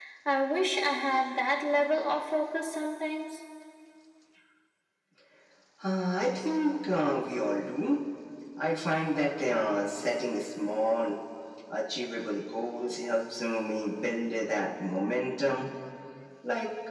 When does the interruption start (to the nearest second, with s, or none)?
none